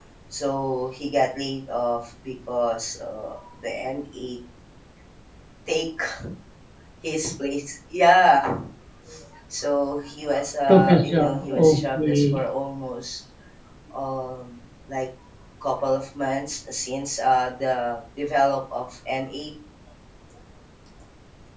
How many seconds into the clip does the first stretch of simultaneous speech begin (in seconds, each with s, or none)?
10.7 s